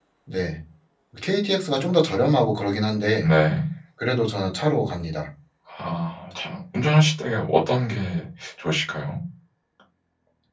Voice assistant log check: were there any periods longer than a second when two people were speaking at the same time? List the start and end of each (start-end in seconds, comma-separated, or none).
none